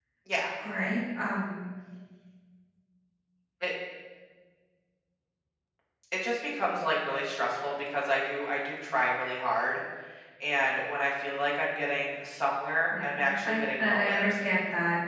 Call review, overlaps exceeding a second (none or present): present